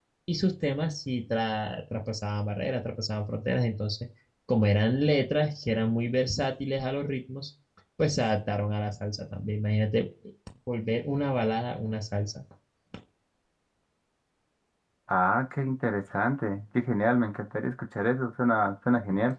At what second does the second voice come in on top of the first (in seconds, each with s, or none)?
none